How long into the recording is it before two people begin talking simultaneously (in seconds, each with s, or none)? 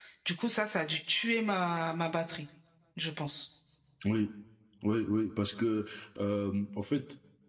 none